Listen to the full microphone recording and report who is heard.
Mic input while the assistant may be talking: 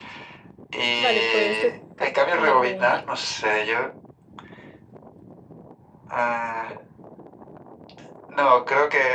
both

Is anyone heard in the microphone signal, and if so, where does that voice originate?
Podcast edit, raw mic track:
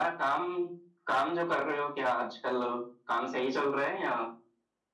echo only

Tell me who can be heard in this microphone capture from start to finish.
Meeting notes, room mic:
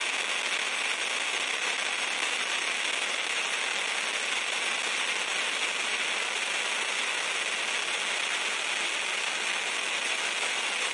neither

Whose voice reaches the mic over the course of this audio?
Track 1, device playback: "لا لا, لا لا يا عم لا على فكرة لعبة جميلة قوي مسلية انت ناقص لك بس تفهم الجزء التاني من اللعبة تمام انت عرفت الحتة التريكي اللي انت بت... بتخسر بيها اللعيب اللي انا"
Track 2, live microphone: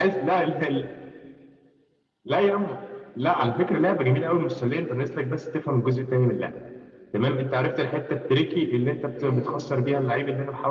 both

